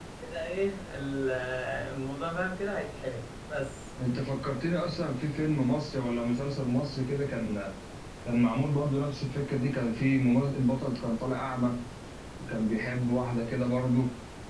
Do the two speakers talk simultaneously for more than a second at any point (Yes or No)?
No